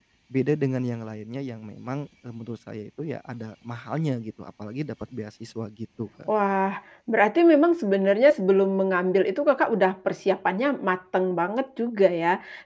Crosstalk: none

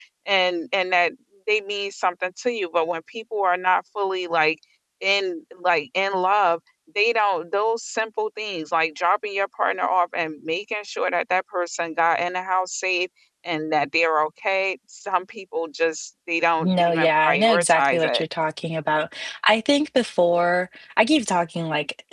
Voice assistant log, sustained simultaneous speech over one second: present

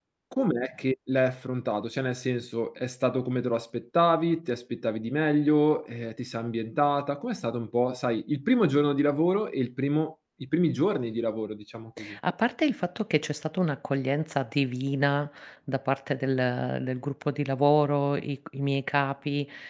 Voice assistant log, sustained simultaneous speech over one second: none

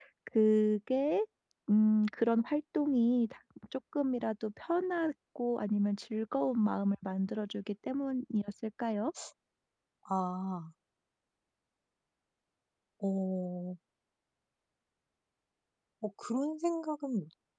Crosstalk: none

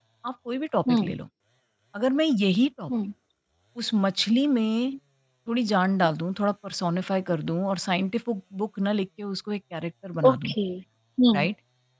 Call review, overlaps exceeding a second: none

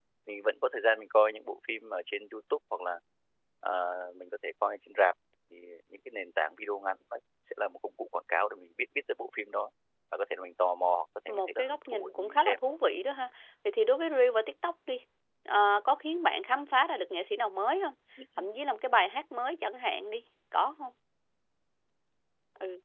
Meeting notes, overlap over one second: present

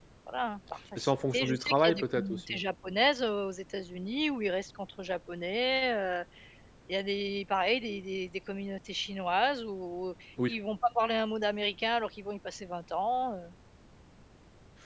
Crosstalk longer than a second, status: present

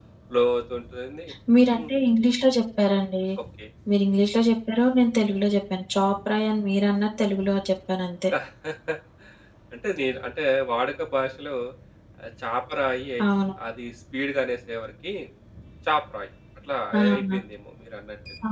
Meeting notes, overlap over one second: none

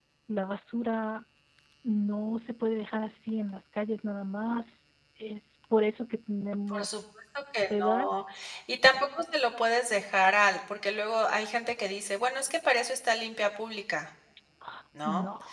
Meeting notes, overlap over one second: none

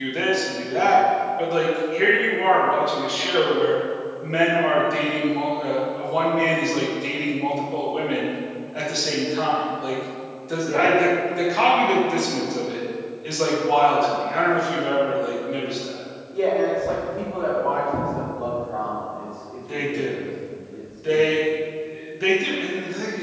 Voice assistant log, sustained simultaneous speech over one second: none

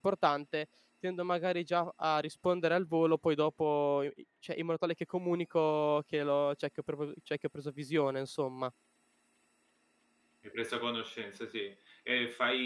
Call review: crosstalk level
none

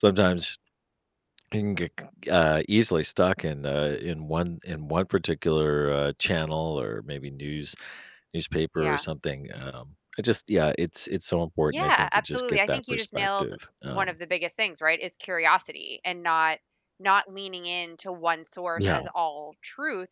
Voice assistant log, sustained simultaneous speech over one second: present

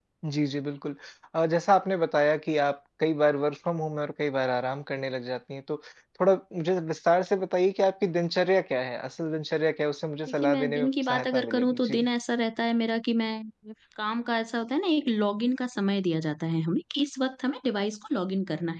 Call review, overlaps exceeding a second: present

